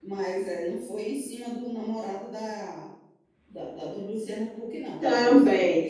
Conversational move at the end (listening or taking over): taking over